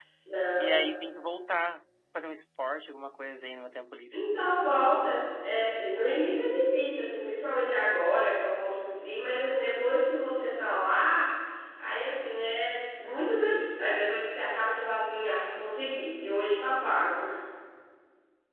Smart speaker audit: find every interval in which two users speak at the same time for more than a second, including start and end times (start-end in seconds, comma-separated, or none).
none